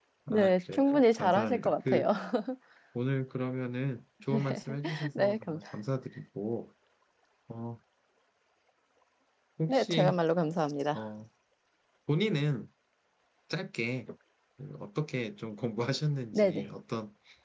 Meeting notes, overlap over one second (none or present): present